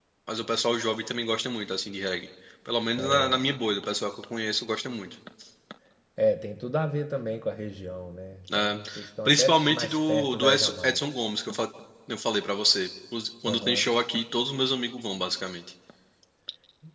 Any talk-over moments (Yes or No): Yes